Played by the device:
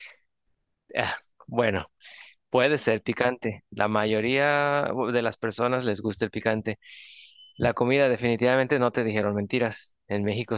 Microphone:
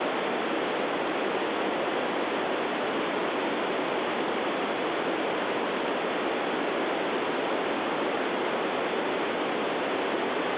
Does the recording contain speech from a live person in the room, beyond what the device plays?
No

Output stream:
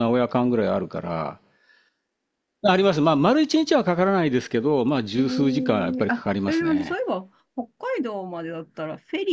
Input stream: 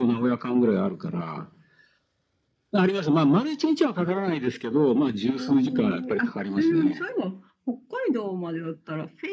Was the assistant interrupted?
No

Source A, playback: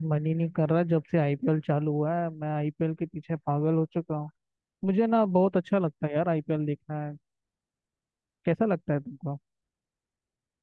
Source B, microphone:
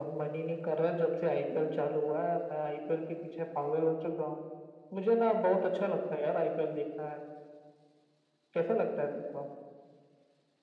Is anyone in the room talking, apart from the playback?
No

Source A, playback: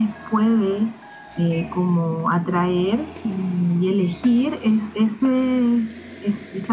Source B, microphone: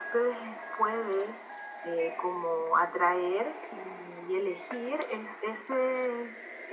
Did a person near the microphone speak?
No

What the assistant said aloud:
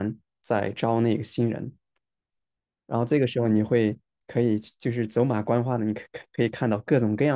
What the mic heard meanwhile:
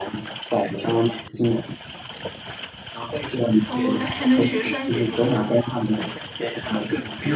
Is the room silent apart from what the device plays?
No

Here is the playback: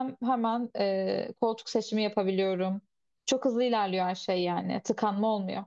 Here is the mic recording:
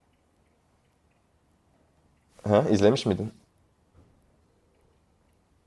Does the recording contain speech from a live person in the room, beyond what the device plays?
Yes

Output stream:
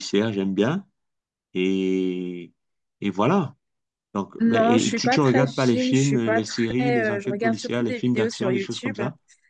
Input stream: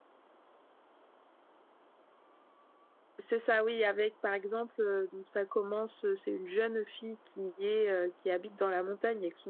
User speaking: Yes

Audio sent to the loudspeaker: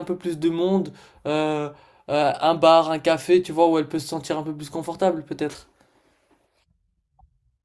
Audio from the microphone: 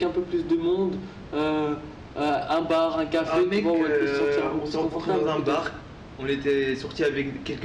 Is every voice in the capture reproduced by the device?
No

